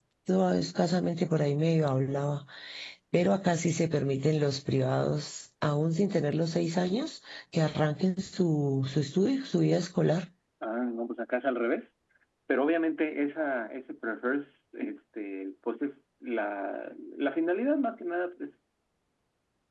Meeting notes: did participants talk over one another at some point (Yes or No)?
No